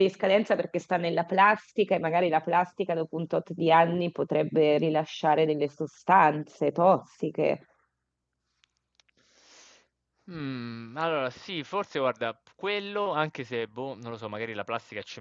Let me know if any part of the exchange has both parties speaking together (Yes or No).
No